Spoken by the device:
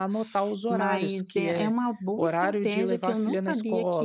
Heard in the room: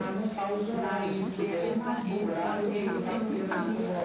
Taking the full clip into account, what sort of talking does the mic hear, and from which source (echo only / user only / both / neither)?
both